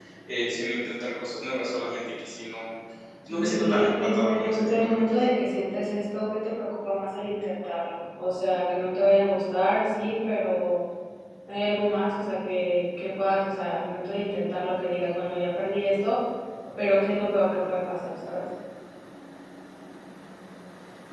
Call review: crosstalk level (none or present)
present